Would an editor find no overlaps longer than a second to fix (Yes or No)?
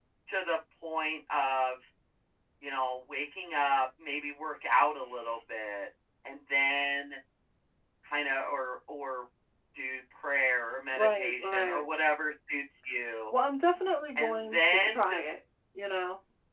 No